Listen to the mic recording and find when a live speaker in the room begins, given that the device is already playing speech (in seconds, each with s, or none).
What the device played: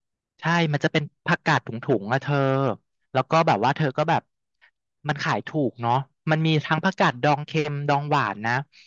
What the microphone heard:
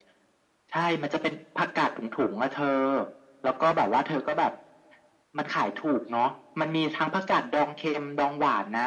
none